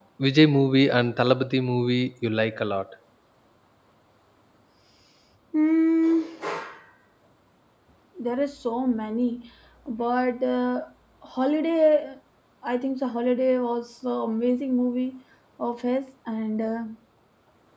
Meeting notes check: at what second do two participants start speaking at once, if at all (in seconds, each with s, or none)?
none